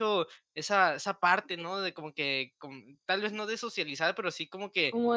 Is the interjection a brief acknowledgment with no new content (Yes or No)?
No